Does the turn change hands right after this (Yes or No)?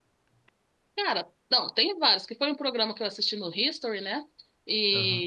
No